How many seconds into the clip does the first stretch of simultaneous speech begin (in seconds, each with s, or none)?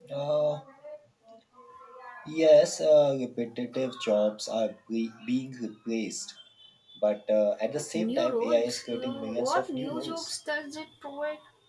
7.8 s